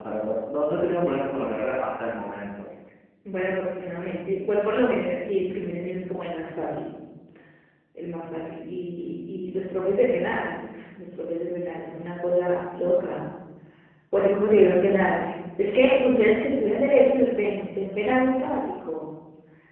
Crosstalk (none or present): none